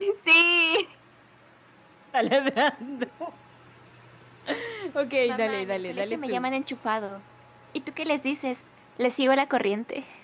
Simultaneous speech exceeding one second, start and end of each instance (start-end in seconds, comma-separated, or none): 5.3-6.5